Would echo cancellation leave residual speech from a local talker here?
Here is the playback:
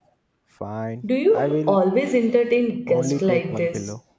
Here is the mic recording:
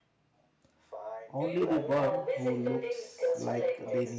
Yes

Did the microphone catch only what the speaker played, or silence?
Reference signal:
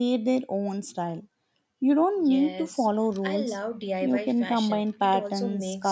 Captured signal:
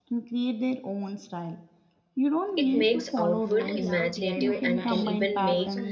No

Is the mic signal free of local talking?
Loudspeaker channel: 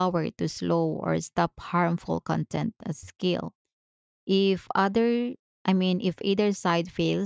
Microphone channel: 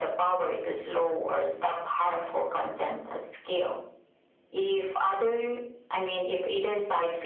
Yes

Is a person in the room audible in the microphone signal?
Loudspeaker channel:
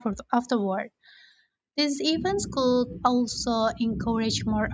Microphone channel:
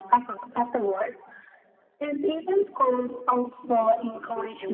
Yes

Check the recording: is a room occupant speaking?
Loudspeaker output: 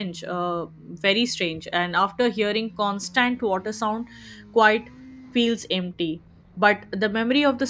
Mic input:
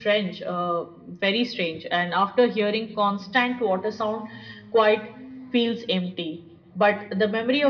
No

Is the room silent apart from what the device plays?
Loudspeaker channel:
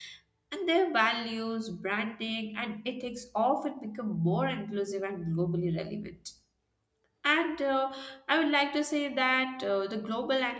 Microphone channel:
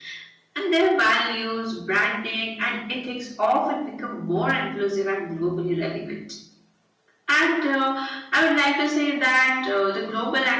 Yes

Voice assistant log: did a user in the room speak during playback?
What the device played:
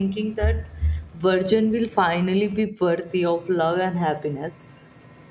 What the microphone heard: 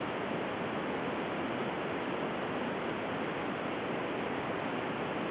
No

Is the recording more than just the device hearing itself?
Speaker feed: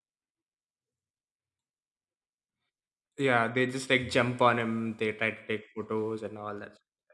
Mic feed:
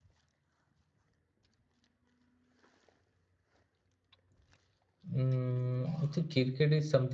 Yes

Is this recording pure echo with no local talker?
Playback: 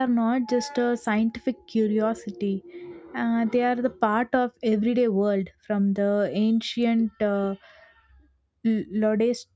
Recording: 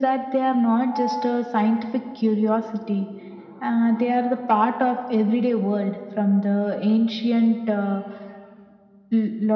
Yes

